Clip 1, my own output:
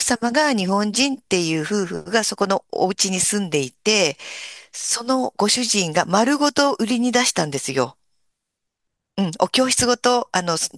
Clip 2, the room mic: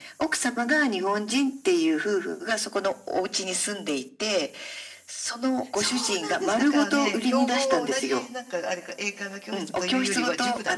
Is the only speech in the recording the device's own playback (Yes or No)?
No